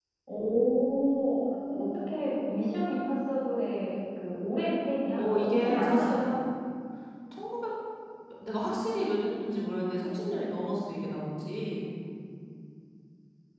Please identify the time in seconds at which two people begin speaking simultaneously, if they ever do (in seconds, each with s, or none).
5.2 s